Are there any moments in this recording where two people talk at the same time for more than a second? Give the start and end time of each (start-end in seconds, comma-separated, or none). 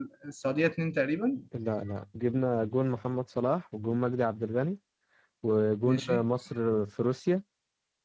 none